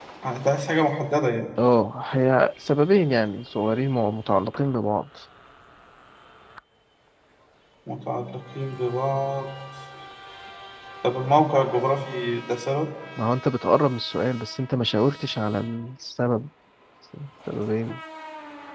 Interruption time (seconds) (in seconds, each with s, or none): none